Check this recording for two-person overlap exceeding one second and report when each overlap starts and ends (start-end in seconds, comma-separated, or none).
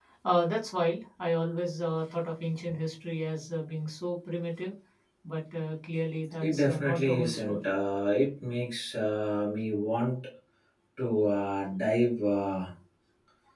6.4-7.7